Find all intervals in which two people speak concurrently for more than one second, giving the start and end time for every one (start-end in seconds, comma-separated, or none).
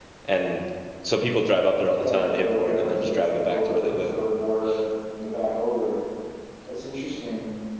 2.0-4.1